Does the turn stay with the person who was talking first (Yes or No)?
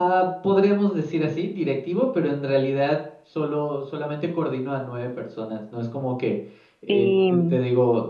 Yes